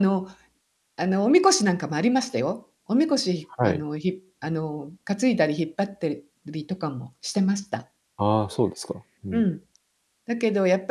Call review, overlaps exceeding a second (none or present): none